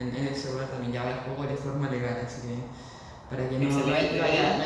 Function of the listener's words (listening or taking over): listening